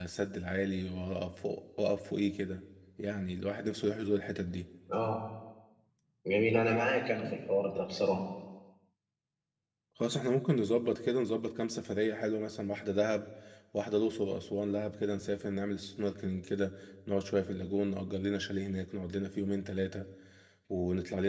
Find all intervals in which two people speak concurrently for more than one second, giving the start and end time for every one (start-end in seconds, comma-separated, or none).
none